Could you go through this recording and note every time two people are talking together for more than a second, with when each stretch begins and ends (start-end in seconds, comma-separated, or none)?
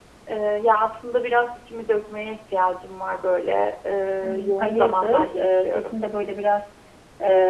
4.2-6.0